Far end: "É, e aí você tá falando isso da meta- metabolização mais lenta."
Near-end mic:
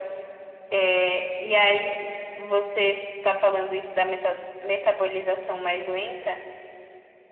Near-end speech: none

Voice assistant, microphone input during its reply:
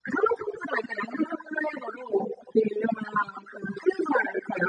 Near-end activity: none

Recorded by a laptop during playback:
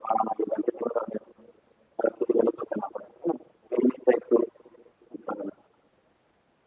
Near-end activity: none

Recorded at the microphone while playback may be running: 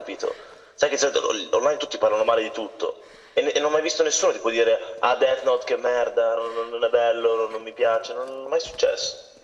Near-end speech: none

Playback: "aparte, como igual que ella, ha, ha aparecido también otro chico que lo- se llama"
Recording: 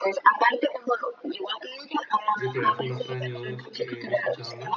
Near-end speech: present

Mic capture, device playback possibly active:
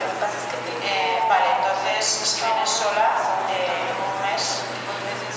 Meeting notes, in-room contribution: none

